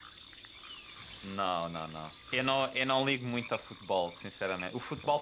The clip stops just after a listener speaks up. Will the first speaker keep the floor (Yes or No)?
Yes